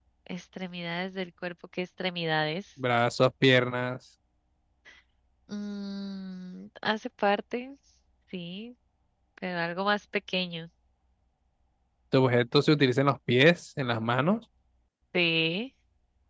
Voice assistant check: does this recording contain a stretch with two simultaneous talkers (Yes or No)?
No